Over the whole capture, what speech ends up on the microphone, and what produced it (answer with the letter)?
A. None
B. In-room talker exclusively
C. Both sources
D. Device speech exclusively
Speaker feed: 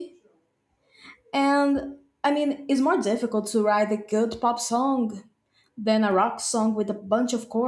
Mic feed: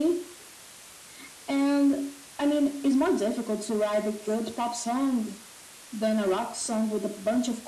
D